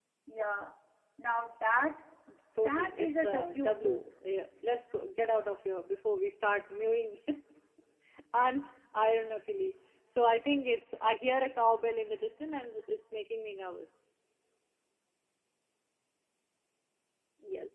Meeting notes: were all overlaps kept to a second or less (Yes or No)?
No